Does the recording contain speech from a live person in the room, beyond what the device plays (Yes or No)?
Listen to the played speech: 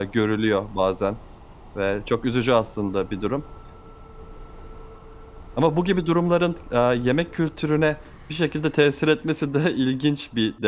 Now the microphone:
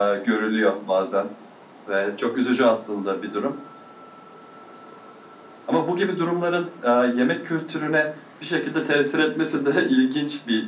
No